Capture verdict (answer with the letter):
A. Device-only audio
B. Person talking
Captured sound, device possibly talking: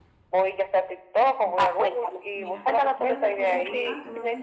B